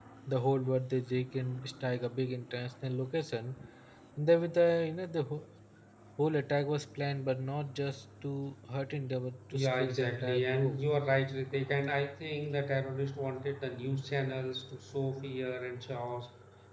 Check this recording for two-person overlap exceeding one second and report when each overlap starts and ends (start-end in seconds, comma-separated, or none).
9.5-10.8